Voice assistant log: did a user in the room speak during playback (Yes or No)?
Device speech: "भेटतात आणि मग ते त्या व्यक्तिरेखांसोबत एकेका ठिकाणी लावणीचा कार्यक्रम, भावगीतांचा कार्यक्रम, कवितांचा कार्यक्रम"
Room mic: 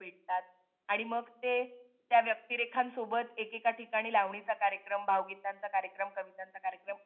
No